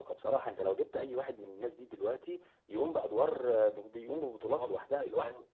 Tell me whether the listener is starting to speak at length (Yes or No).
Yes